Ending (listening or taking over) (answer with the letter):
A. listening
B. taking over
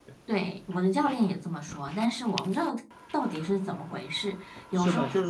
B